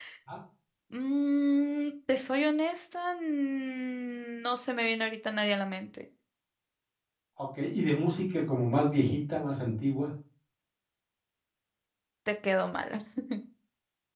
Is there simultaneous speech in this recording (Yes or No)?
No